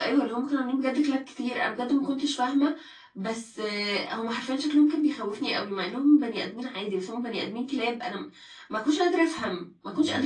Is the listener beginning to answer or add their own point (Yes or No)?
Yes